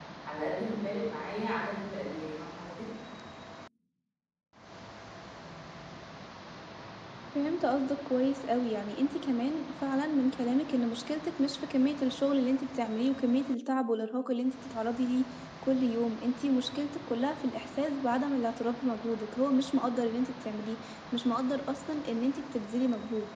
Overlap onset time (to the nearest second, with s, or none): none